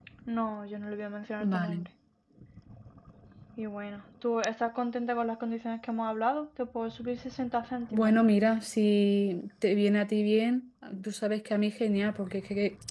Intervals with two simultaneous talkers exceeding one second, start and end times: none

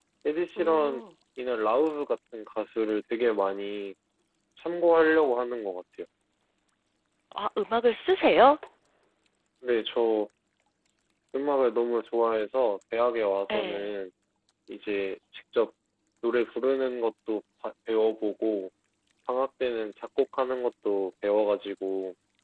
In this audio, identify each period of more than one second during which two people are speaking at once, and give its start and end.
none

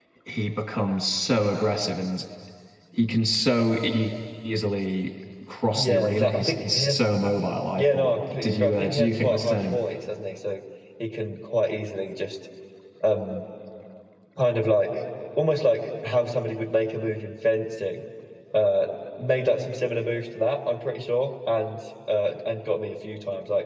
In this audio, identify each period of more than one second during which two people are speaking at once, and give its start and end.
5.7-7.0, 7.8-9.8

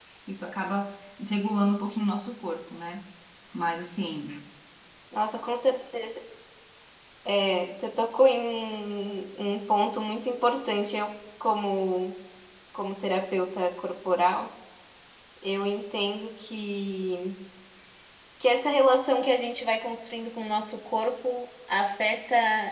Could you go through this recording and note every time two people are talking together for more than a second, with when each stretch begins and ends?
none

